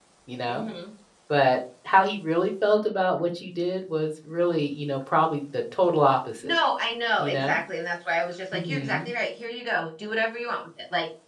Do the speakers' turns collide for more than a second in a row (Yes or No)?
No